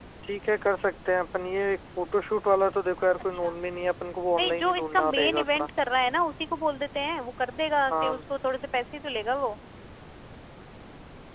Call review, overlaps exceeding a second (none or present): present